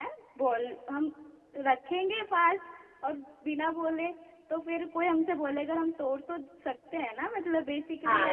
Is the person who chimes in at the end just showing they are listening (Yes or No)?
No